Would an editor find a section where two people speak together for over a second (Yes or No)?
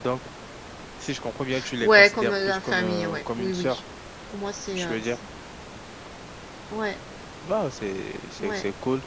Yes